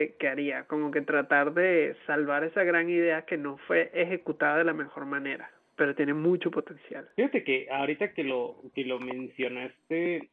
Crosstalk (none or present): none